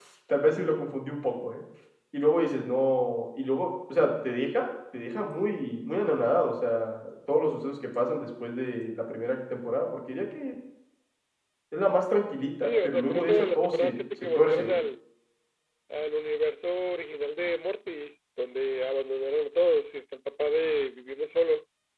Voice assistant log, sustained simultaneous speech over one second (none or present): present